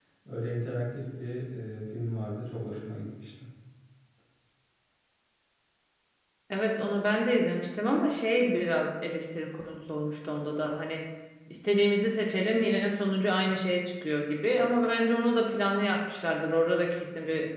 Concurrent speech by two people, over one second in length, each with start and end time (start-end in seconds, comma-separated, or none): none